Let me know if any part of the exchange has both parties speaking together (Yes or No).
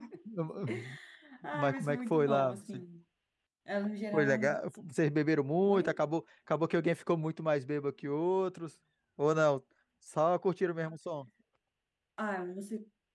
Yes